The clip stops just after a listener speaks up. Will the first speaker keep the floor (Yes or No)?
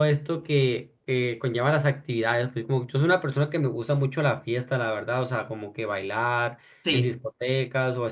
Yes